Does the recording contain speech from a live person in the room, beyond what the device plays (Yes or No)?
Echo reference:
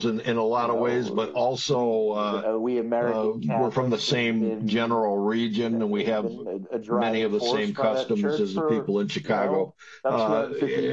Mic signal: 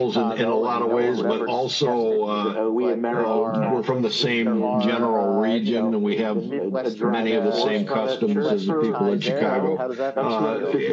Yes